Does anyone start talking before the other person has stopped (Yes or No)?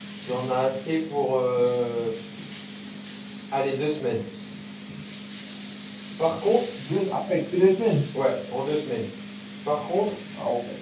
No